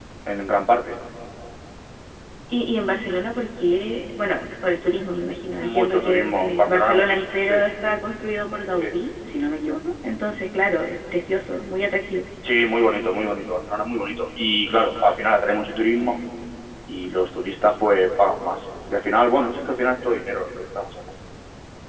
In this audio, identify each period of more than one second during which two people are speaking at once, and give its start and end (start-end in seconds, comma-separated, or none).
5.6-7.5